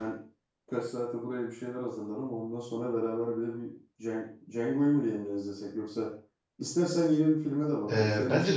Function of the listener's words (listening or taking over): taking over